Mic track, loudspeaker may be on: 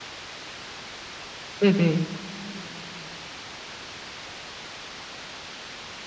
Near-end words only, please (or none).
네네.